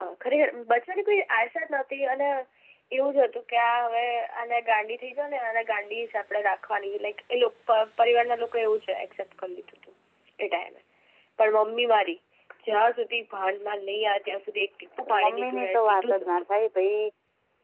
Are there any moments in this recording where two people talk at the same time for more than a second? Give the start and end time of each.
15.1-16.3

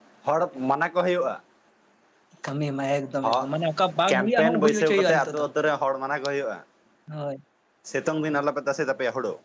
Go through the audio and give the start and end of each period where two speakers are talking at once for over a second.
4.1-5.5

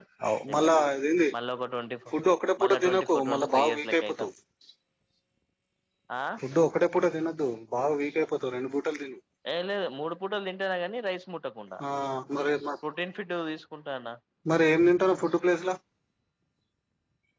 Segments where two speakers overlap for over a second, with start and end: 2.6-4.3

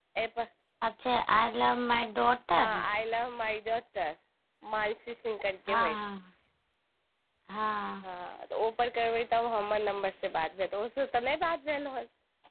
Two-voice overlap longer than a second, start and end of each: none

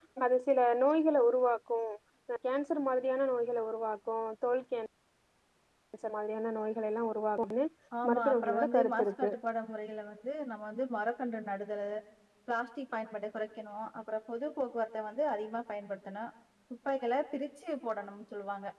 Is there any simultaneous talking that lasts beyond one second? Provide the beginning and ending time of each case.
8.1-9.3

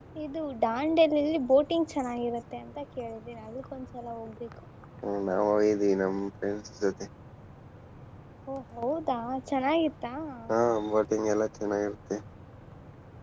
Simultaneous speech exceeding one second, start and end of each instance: none

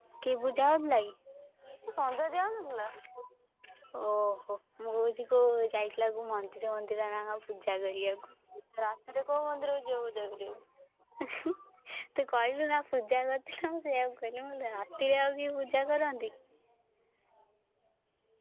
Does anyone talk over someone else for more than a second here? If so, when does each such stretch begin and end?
none

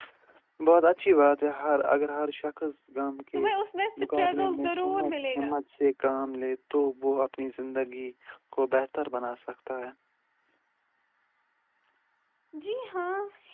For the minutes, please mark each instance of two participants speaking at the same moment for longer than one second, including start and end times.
4.0-5.5

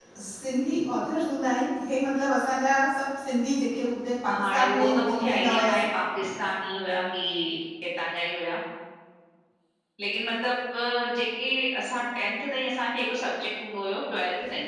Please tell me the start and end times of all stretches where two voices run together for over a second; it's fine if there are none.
4.3-5.8

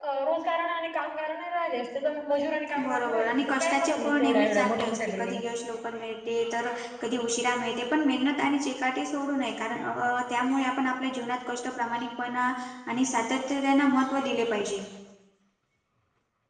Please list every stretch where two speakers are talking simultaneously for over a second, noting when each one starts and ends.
2.8-5.5

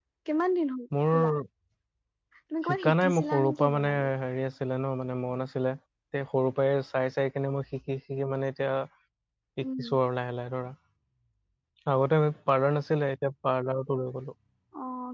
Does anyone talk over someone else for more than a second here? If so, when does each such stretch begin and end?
2.8-4.1

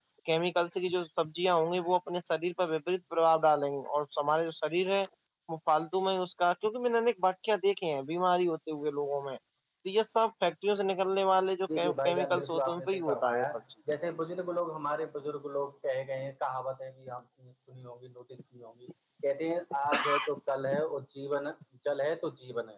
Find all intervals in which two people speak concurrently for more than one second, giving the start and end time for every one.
12.1-13.4

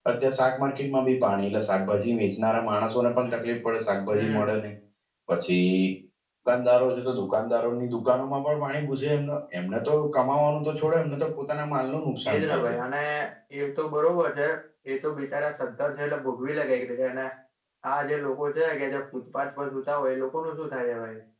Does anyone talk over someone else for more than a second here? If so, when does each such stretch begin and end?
none

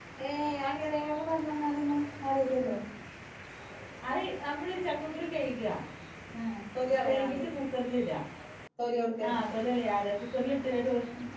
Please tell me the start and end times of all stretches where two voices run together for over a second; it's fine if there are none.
none

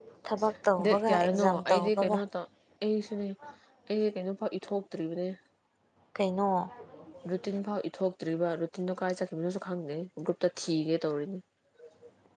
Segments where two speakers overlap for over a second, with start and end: 0.8-2.2

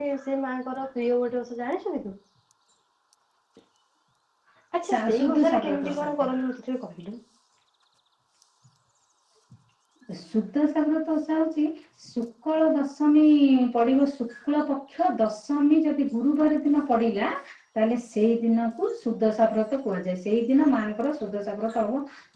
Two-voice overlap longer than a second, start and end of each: 4.9-6.3

